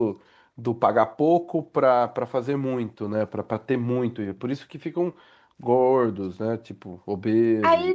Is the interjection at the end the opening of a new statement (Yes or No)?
Yes